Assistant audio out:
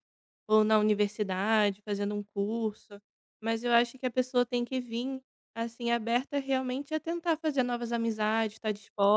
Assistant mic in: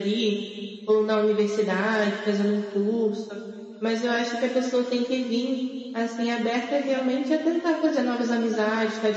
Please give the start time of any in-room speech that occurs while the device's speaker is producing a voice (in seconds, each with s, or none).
none